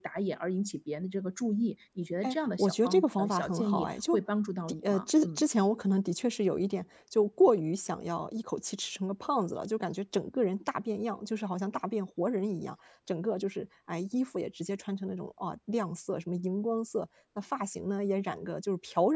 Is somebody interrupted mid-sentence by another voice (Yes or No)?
Yes